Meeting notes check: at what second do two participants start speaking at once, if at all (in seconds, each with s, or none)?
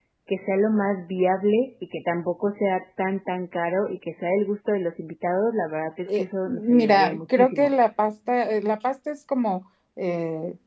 6.1 s